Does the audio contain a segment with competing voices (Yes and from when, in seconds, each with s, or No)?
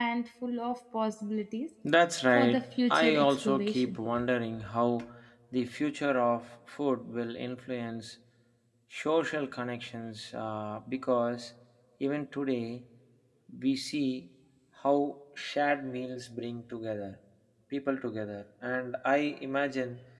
Yes, from 2.4 s